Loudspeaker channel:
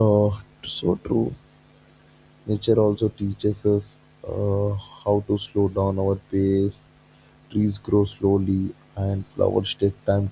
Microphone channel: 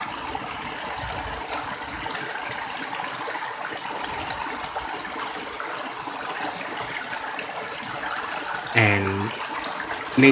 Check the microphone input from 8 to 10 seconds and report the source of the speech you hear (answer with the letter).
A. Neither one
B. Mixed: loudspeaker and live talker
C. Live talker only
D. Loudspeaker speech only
C